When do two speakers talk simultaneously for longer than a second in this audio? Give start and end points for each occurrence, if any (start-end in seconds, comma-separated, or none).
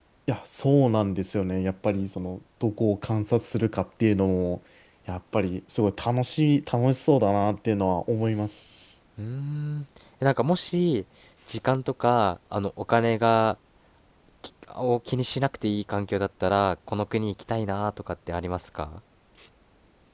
none